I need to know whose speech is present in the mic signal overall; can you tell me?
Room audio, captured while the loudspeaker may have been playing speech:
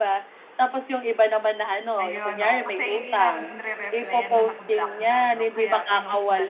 both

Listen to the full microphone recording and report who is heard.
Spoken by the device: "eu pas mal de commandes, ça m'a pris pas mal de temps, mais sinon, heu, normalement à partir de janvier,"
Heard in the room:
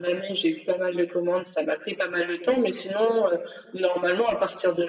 echo only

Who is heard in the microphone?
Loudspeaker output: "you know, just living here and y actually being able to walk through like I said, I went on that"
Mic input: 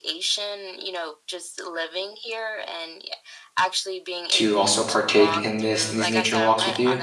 both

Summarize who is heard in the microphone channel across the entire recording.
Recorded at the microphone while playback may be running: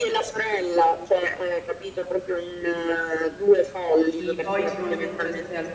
both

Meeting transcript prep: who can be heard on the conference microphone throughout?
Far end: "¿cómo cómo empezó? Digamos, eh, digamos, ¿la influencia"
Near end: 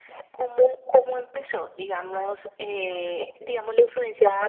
echo only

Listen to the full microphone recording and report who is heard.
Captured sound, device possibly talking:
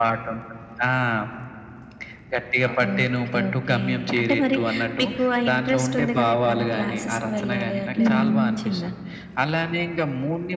both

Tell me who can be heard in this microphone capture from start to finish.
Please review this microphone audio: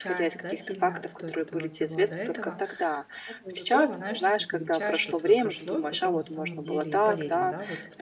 both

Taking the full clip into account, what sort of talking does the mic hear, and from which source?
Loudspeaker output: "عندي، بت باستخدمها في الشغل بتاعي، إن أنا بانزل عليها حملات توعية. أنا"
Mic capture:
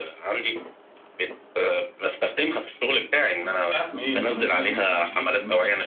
both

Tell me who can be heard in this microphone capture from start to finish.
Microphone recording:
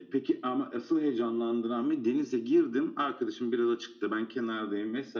echo only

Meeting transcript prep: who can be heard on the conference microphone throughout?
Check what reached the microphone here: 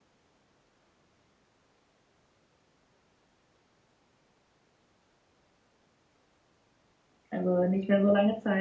user only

